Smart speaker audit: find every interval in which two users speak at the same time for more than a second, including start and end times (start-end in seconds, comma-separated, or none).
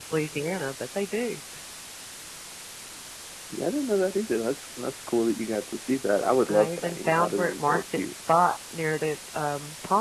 6.5-8.1